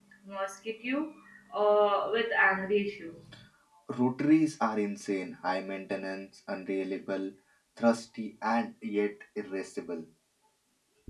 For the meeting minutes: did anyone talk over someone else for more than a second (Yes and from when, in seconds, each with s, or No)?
No